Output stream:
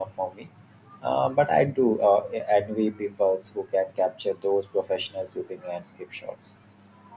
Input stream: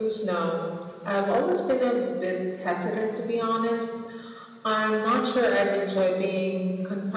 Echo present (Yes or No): No